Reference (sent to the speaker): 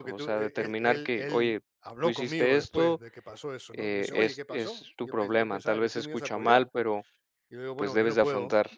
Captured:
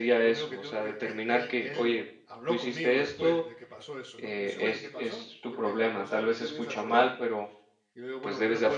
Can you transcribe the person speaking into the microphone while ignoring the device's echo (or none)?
none